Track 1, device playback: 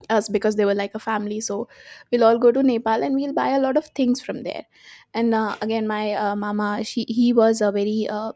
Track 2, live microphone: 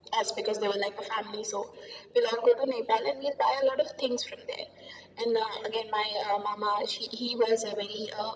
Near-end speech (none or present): none